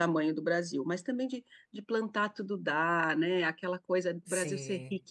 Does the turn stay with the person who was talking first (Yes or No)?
Yes